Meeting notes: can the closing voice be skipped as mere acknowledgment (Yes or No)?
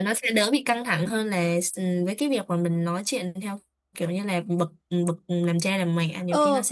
No